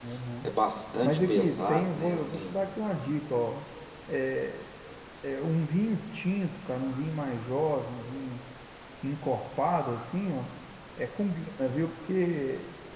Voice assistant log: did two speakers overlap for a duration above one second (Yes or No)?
Yes